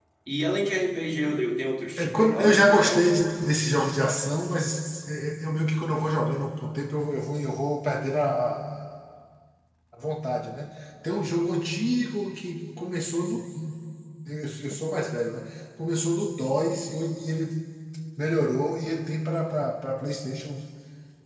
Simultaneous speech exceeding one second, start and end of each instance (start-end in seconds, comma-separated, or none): 2.0-3.2